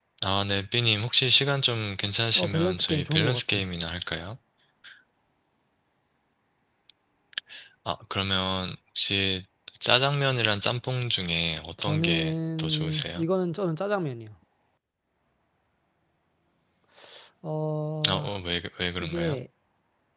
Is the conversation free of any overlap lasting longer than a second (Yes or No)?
No